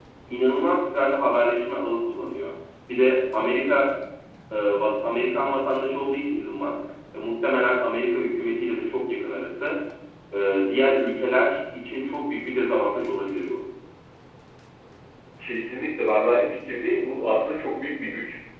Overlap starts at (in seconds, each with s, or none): none